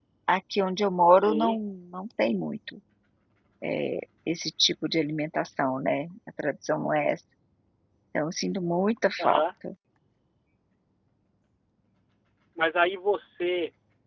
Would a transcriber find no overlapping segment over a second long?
Yes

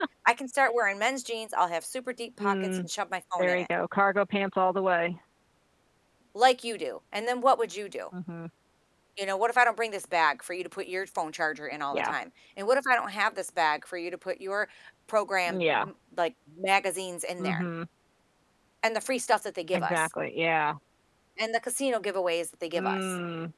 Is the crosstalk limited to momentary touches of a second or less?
Yes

